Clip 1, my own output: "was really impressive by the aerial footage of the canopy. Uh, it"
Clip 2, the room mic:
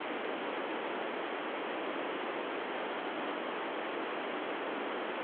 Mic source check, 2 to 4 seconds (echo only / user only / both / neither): neither